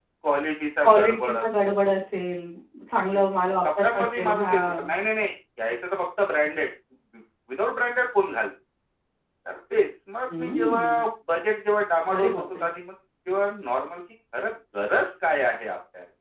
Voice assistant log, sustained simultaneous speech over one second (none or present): present